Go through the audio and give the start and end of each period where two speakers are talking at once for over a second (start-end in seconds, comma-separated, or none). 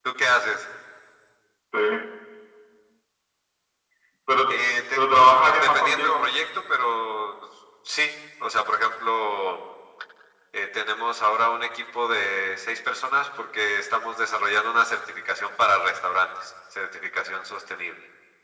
5.0-6.3